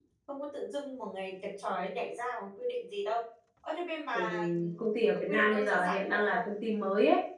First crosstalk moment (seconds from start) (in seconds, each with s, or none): 4.1 s